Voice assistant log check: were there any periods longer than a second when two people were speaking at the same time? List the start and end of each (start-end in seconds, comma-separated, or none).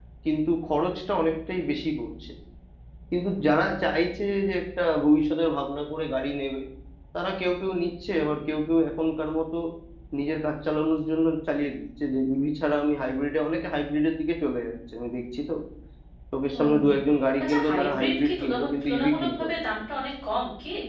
17.4-19.6